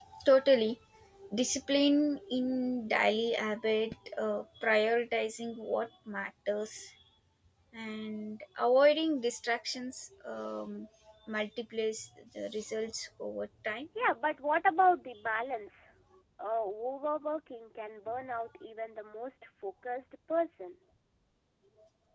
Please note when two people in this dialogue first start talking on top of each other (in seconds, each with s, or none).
none